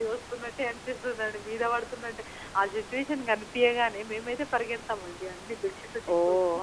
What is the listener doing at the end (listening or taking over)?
listening